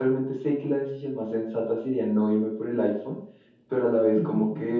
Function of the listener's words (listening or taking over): listening